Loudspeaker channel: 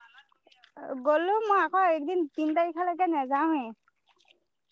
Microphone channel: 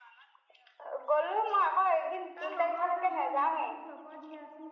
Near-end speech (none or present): present